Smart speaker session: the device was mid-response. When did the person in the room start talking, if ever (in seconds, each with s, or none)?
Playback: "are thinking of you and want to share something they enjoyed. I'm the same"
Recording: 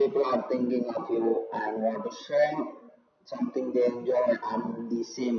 none